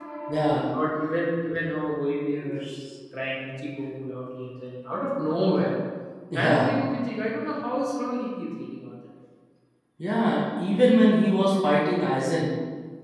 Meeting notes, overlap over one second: none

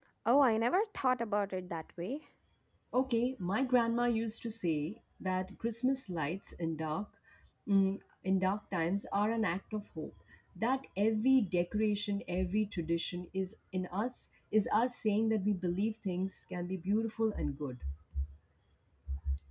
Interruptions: none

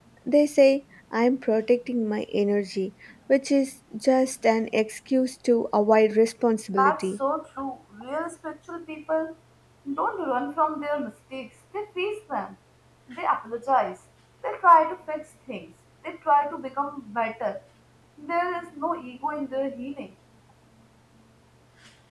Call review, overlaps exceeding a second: none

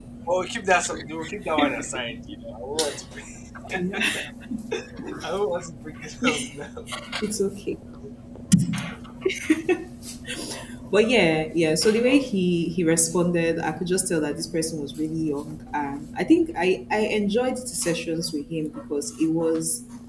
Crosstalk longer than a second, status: none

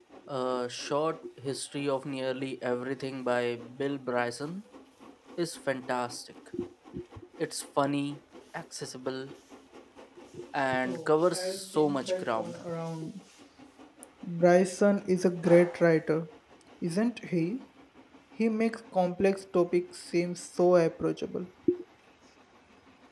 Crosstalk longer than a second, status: present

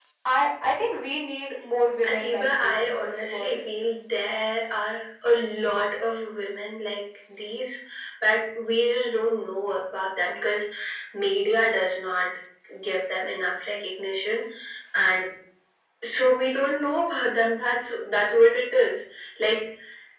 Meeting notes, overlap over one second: present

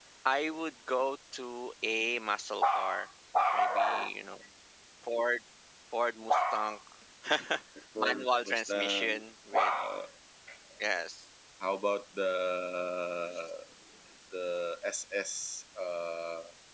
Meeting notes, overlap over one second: present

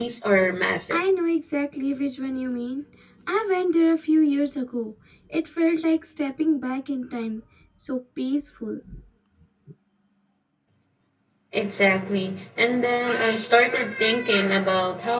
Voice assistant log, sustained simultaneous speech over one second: none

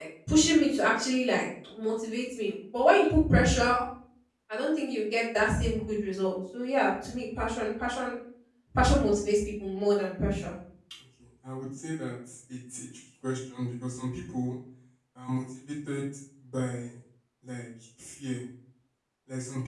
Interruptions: none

